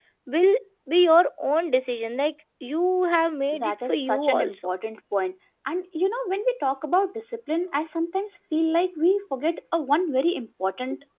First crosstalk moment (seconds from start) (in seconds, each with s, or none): 3.5 s